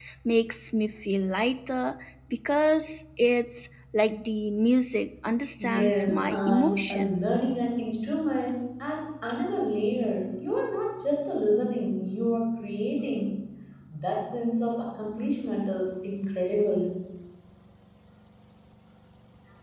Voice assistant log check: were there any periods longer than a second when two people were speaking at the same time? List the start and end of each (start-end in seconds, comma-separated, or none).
5.6-7.1